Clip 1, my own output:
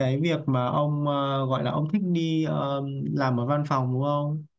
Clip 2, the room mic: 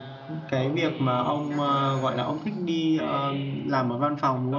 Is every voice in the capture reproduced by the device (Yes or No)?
No